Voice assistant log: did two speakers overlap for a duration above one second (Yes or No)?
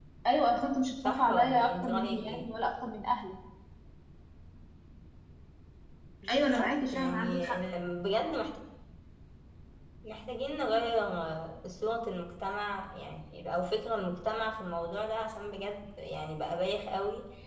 Yes